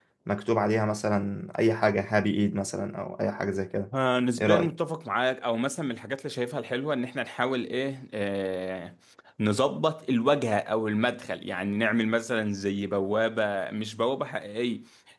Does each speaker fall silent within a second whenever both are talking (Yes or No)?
Yes